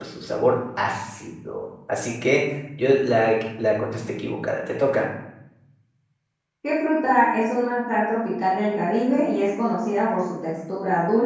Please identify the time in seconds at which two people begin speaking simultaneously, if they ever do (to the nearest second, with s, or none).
none